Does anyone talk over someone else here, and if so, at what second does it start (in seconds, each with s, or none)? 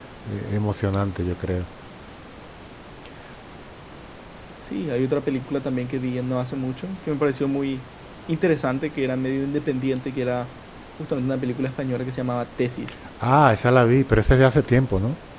none